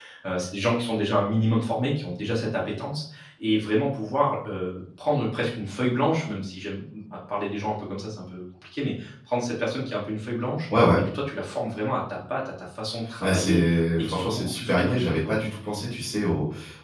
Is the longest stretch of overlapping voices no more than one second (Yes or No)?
No